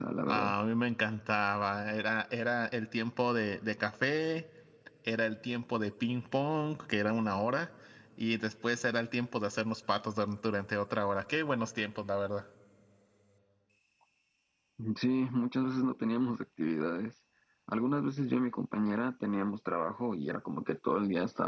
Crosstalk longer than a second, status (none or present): none